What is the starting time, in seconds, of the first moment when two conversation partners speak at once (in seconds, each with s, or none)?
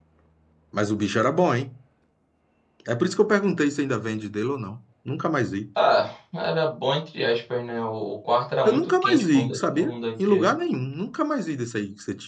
8.6 s